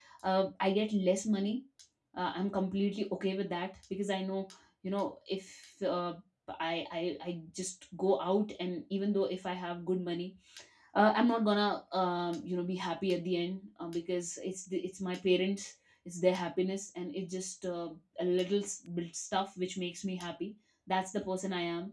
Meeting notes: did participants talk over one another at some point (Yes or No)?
No